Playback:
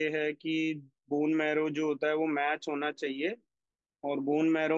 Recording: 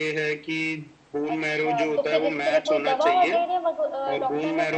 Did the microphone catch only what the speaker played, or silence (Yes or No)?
No